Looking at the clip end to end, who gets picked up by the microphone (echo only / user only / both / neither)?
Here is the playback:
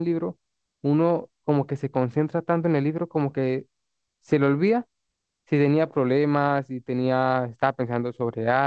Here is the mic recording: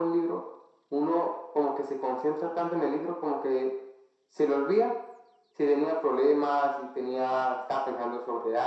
echo only